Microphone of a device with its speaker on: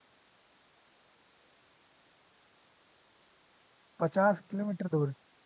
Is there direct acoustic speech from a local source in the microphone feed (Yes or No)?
Yes